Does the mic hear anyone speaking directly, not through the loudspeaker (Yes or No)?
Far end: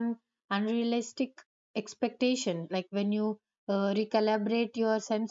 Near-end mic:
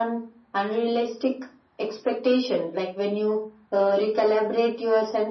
No